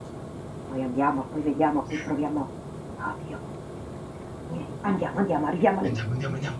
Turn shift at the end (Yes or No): Yes